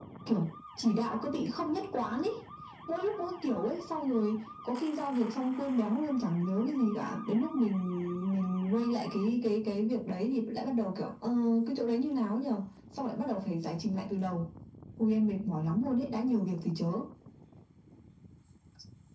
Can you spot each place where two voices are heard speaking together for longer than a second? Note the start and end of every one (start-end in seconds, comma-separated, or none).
none